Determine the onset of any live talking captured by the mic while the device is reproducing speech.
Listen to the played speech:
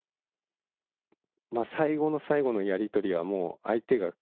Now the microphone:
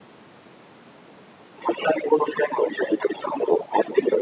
none

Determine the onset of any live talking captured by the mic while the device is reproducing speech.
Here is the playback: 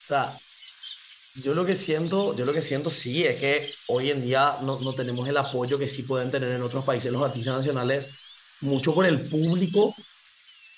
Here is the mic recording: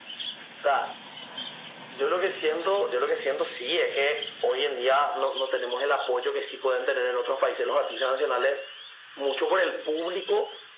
none

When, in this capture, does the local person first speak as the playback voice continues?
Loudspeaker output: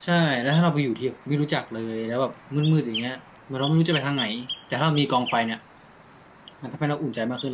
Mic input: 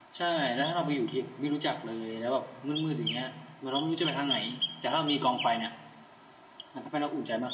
none

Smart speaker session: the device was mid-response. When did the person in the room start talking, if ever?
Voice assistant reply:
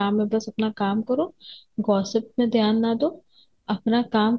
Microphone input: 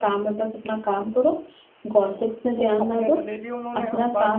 2.1 s

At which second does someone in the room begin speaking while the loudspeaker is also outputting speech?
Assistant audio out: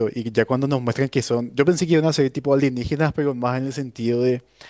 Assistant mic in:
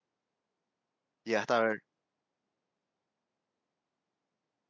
1.2 s

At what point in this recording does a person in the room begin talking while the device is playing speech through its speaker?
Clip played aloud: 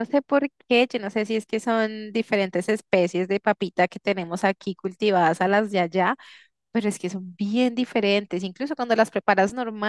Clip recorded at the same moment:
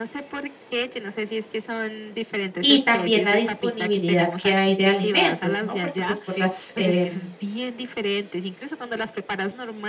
2.6 s

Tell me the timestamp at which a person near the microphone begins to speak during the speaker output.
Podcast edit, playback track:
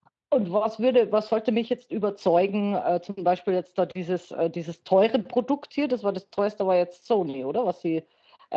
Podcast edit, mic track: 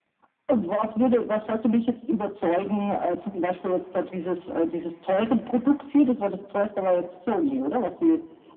none

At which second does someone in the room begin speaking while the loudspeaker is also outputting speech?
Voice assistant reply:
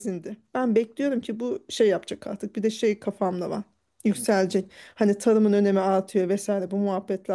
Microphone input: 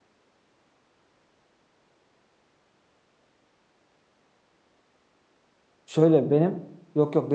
5.8 s

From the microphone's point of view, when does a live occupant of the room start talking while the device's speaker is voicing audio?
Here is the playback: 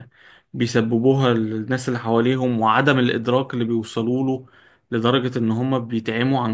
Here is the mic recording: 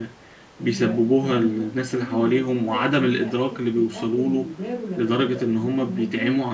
0.6 s

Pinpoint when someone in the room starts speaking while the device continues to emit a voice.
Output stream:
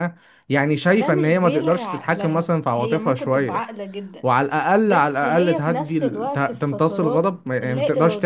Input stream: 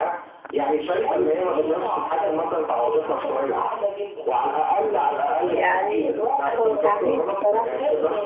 5.5 s

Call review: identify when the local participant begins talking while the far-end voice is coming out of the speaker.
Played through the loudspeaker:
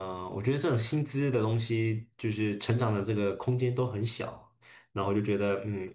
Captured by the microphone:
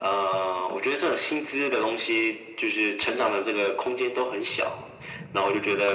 none

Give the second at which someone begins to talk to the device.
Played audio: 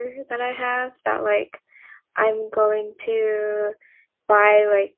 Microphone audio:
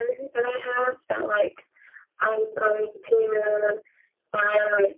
none

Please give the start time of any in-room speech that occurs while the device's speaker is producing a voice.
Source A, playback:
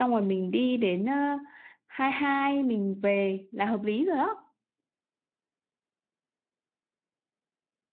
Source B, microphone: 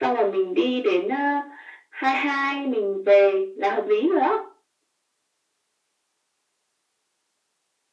none

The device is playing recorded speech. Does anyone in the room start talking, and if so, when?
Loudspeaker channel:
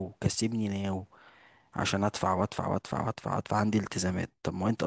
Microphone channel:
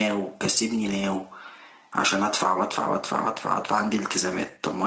none

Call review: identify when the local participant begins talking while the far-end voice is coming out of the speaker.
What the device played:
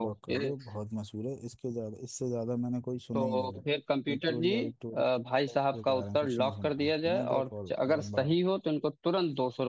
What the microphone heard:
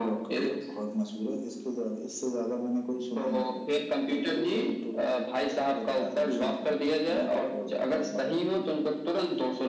none

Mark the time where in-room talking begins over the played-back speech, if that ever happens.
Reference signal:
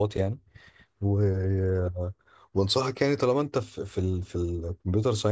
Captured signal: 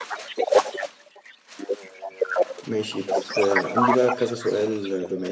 2.6 s

